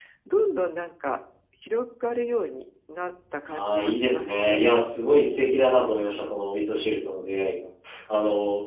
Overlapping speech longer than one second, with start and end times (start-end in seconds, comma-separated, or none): 3.5-4.8